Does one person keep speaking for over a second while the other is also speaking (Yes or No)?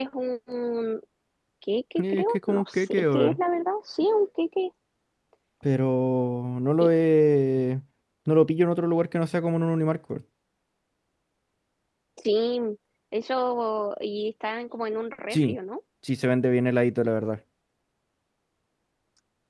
Yes